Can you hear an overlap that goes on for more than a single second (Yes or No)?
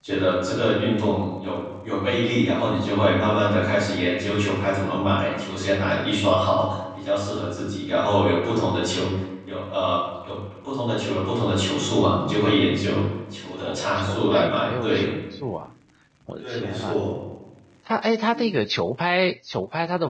Yes